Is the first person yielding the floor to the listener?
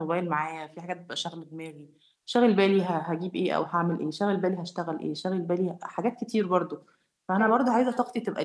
No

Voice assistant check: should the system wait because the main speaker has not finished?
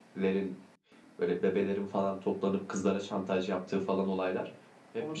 Yes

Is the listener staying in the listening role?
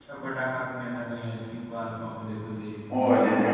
No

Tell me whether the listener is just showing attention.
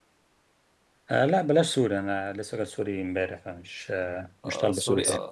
No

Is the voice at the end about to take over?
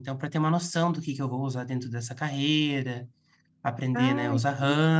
No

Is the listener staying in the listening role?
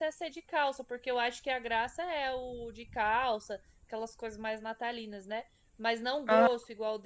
Yes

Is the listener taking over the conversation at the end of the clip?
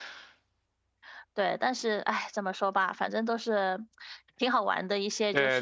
Yes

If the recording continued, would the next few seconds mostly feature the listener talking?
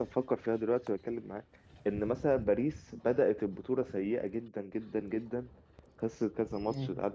No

